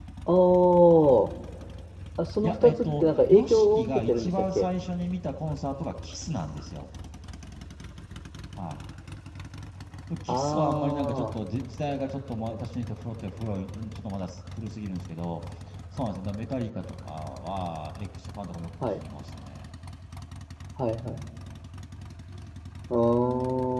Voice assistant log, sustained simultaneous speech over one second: present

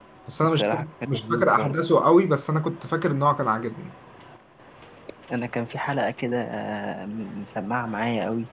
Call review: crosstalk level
present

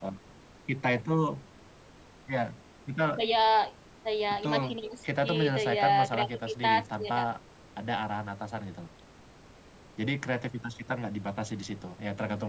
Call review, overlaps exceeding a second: present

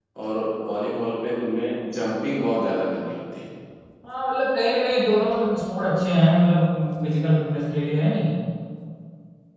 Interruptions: none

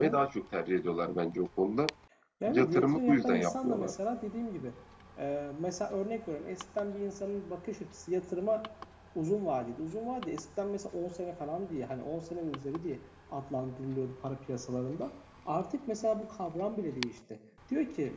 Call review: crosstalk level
present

